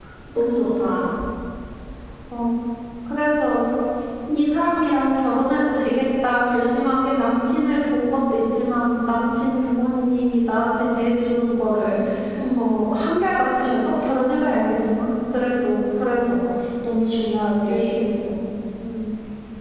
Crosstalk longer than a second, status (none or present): none